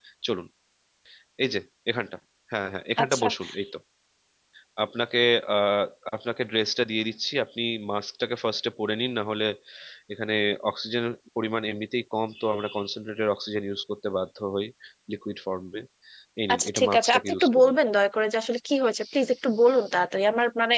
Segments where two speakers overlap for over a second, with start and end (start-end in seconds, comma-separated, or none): 16.5-17.7